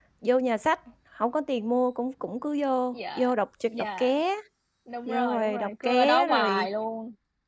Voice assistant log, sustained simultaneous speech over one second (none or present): present